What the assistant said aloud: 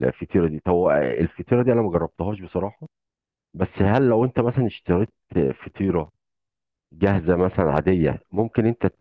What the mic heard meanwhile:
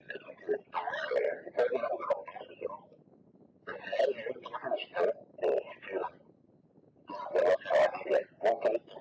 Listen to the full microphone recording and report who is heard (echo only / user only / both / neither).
echo only